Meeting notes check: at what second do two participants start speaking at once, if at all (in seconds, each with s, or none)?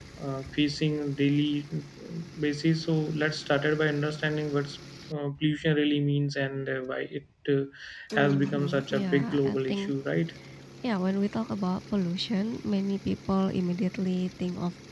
8.1 s